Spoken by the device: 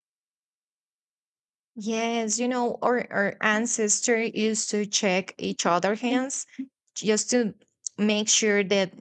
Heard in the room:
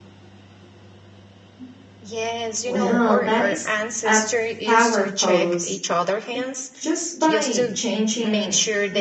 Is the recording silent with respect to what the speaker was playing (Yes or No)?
No